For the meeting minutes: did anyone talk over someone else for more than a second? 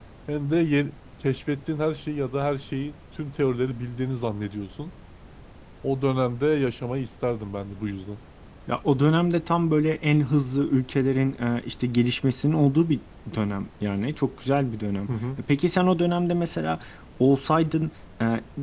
No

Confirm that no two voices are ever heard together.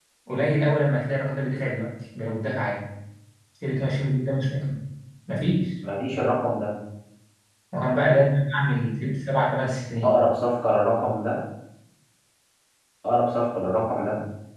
Yes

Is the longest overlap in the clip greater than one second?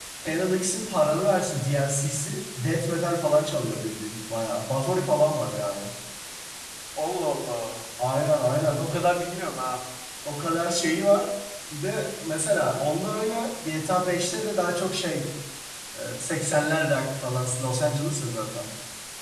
No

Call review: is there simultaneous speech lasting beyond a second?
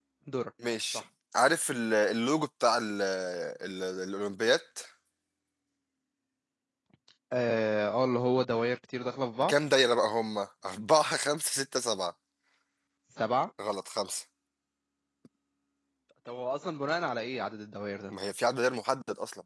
No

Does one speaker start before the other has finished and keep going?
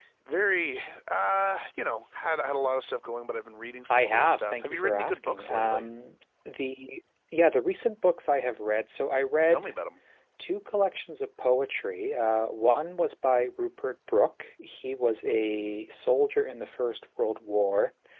Yes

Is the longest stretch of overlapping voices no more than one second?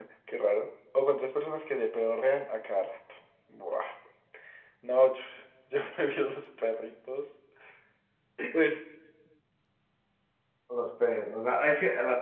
Yes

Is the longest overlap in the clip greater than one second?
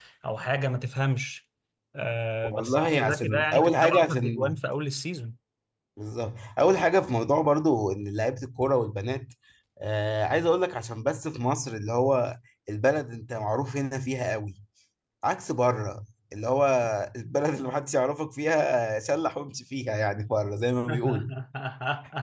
Yes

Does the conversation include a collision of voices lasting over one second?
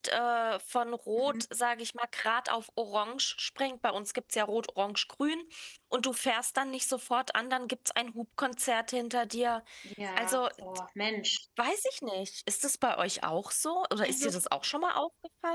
No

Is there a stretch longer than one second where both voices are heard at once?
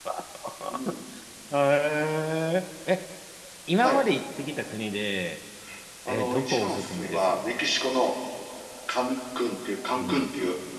Yes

